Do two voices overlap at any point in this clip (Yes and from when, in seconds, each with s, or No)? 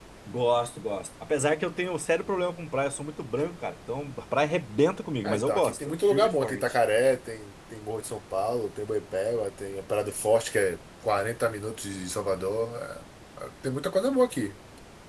Yes, from 5.2 s